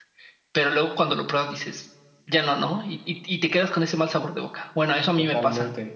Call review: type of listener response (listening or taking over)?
taking over